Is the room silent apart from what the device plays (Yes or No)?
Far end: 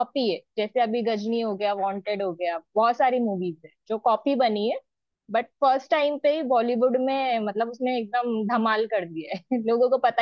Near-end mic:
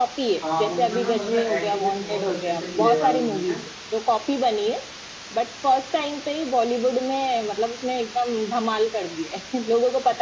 No